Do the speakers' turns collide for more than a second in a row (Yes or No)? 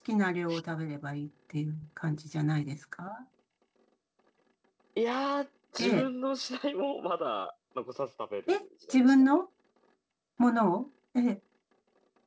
No